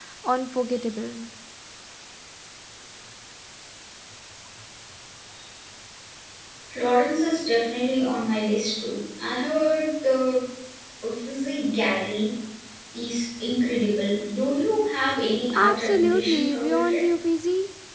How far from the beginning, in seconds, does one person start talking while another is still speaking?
16 s

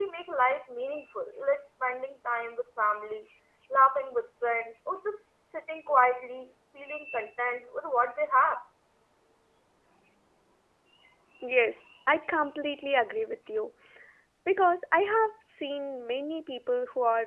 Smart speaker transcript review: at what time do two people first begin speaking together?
none

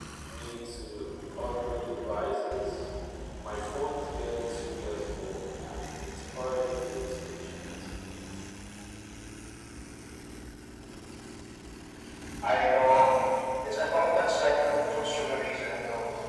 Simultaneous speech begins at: none

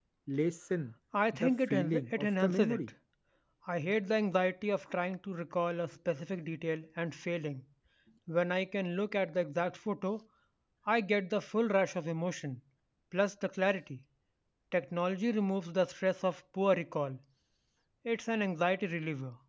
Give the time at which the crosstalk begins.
1 s

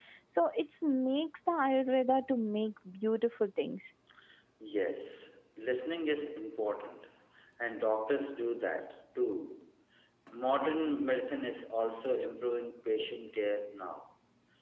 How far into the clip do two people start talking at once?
none

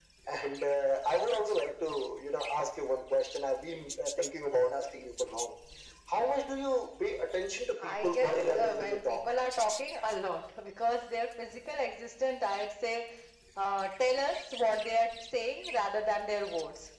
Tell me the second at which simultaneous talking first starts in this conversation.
8 s

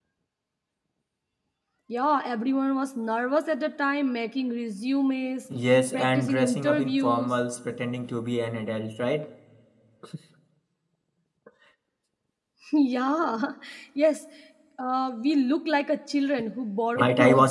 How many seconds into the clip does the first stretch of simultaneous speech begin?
6 s

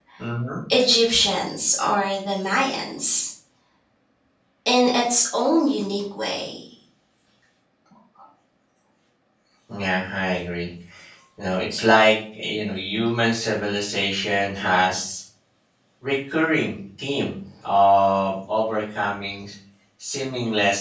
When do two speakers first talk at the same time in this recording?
none

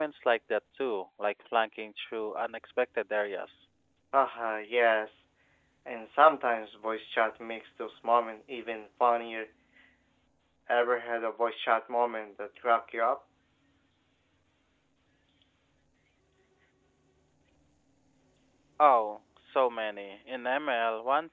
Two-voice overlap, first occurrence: none

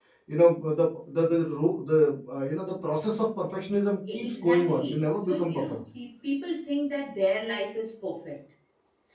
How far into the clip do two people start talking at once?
4 s

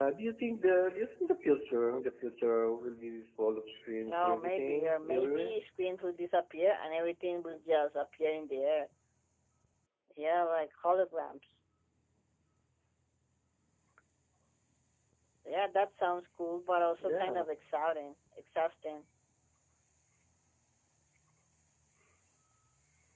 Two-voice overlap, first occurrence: 4 s

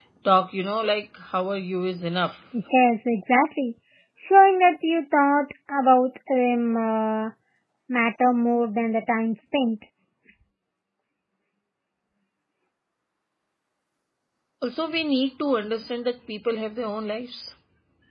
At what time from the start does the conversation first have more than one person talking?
none

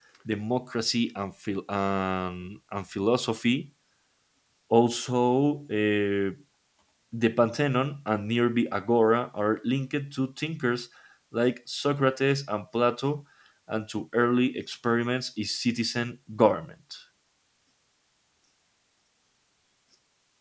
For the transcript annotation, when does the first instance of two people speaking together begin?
none

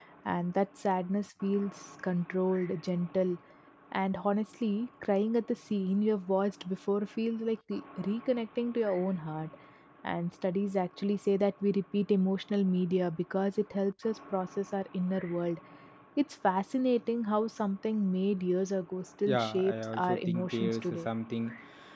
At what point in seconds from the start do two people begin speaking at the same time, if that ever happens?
19 s

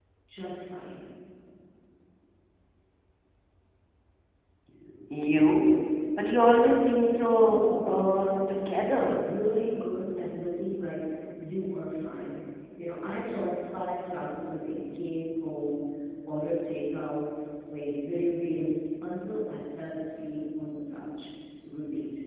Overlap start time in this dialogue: 7 s

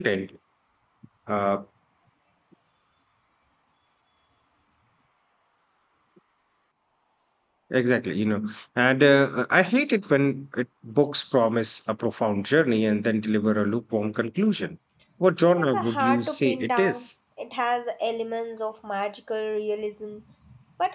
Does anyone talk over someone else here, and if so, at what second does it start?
16 s

